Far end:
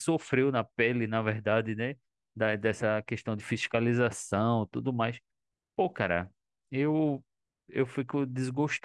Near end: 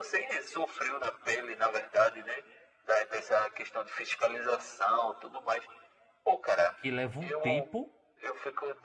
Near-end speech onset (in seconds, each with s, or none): 6.8 s